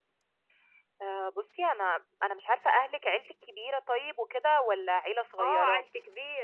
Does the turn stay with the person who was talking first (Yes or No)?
No